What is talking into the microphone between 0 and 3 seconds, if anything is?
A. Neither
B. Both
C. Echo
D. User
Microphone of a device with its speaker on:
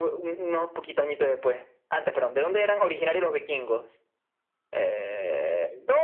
C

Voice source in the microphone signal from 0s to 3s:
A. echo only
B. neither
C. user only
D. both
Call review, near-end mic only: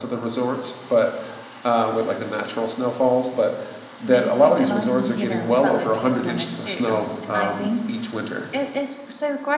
A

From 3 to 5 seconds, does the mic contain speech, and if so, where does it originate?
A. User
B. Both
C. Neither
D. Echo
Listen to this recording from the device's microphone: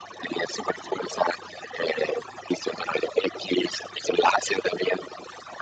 D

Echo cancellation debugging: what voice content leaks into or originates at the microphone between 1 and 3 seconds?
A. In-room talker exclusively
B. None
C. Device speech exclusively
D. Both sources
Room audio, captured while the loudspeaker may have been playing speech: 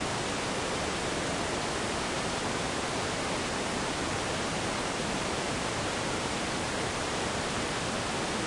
B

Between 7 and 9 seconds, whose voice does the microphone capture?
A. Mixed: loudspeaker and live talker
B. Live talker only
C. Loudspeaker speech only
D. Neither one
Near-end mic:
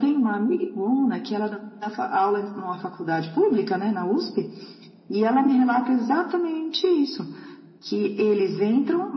C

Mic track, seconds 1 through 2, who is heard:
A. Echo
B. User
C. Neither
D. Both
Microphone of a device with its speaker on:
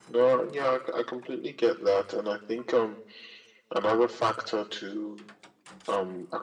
A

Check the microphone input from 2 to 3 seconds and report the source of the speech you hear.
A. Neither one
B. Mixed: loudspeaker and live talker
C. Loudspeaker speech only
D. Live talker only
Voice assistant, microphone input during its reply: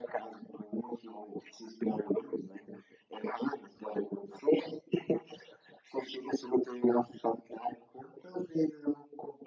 C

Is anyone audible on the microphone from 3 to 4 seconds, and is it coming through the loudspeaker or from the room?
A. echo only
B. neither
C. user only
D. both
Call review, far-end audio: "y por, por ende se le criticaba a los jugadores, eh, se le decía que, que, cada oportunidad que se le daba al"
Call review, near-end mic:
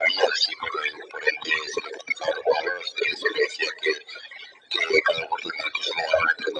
A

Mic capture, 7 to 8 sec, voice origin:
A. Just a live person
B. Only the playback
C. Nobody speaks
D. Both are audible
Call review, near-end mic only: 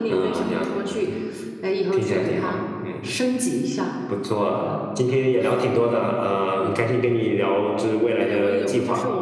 D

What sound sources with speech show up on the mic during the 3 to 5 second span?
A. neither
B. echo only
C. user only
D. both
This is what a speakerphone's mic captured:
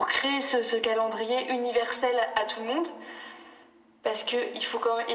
B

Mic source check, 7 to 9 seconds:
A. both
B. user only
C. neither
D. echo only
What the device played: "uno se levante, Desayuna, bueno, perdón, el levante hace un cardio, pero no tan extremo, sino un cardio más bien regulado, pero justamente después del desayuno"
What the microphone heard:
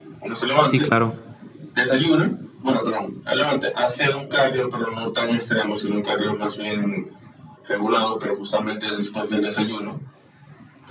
D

